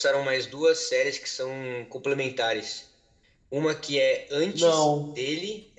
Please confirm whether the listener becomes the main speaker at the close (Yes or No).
No